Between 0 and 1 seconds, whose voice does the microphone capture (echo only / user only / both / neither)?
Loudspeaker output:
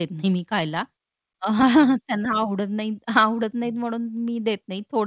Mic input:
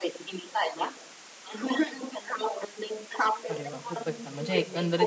echo only